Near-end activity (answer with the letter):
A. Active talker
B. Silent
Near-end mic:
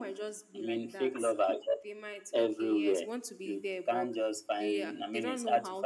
B